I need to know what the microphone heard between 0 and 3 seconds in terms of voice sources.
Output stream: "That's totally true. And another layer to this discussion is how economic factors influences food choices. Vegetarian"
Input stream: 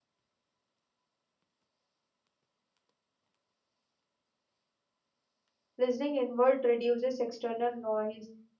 neither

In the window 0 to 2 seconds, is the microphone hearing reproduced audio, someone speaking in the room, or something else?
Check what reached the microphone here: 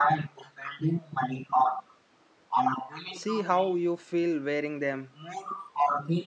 echo only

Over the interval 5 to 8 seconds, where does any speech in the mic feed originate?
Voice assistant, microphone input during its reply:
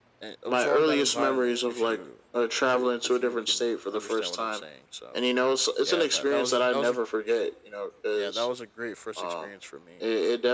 both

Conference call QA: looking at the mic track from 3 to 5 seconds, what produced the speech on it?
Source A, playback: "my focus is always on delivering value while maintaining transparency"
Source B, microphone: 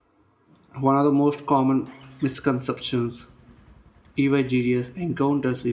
user only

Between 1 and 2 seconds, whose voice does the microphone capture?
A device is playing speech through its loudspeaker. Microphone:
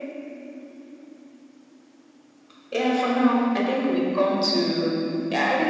neither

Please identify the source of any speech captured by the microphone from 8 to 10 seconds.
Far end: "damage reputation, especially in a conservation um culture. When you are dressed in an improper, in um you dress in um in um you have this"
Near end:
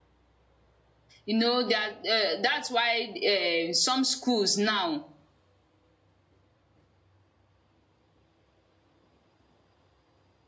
neither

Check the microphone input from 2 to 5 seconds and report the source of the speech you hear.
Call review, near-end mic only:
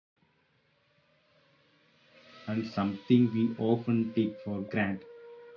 user only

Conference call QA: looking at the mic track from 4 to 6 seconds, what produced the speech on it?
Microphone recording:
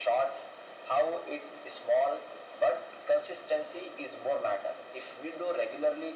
echo only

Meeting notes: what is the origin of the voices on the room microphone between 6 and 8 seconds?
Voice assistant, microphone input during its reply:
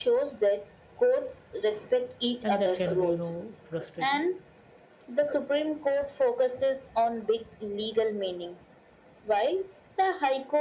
echo only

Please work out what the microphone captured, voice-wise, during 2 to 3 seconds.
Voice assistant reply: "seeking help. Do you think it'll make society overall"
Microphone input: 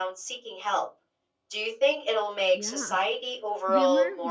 both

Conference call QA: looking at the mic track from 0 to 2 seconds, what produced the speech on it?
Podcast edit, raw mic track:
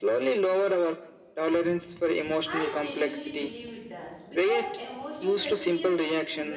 echo only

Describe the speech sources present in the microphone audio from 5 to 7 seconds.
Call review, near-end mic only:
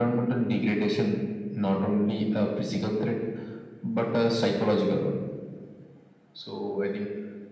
echo only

